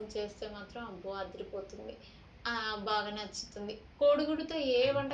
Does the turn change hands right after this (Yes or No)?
No